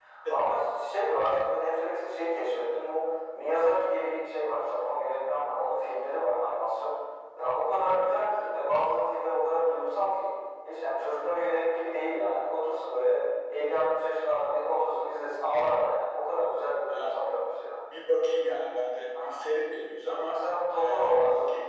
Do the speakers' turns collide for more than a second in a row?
No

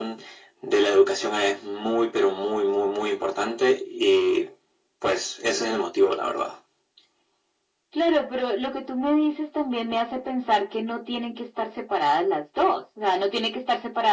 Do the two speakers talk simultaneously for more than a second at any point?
No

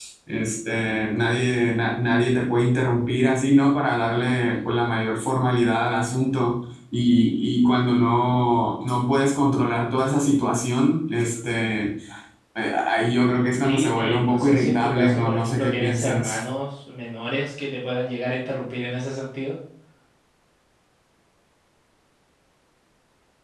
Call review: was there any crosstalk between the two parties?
Yes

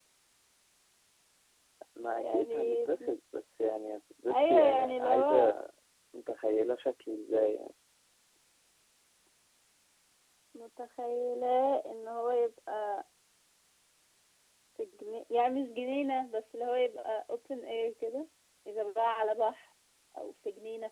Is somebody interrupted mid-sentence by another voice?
Yes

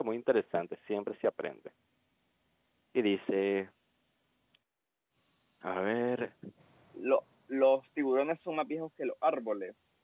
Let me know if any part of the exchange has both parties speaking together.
No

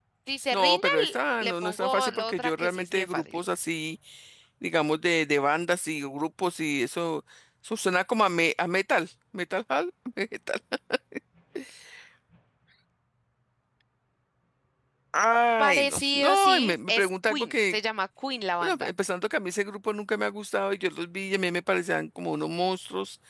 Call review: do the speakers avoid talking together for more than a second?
No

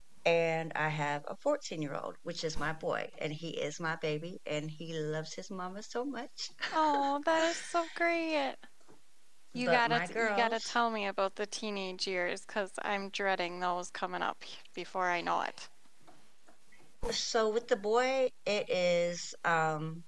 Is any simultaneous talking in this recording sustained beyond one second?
Yes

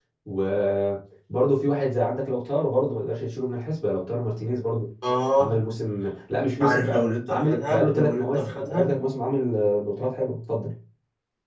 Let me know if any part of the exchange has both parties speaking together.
Yes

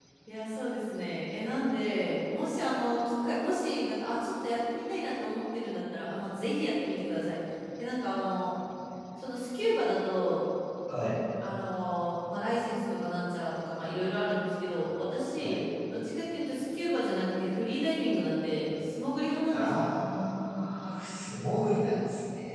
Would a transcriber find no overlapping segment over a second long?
Yes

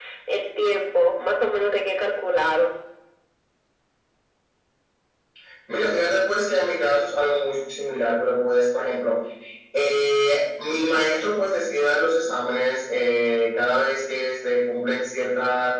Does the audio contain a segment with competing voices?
No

